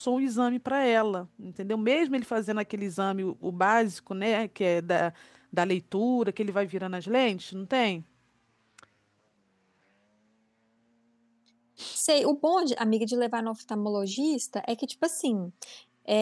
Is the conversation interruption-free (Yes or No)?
Yes